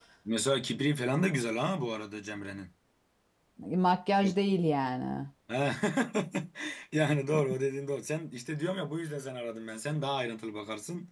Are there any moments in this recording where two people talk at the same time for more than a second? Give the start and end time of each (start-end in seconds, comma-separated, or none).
none